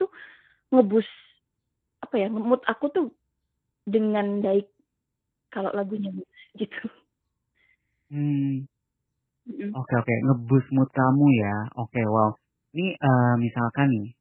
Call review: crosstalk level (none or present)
none